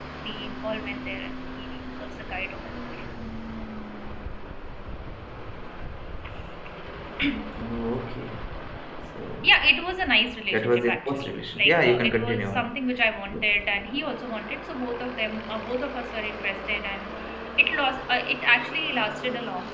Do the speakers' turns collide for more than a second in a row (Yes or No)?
Yes